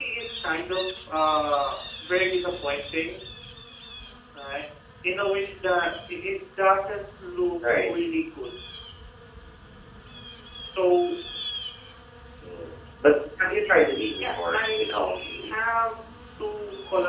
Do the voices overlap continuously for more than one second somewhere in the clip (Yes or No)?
Yes